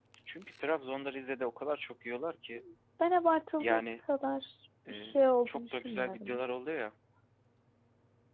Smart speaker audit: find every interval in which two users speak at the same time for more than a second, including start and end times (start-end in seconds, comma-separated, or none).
4.9-6.4